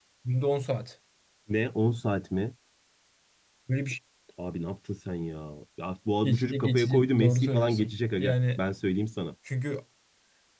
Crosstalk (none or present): present